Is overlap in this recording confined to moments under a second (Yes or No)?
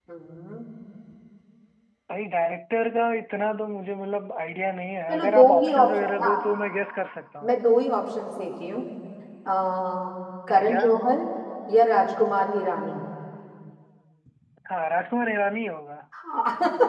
No